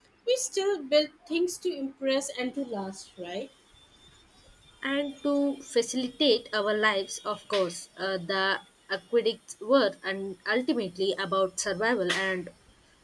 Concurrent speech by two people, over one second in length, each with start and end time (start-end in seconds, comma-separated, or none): none